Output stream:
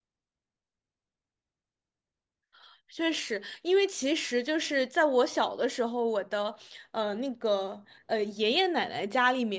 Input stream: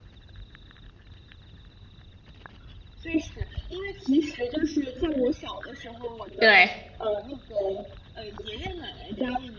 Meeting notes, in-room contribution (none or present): present